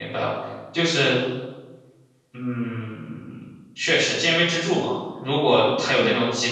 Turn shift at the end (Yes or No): No